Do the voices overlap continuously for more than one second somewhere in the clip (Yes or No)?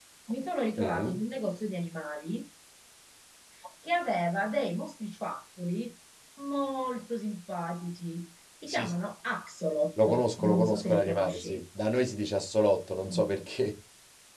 Yes